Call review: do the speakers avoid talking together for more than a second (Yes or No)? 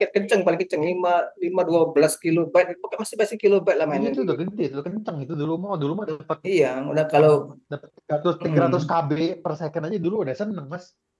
Yes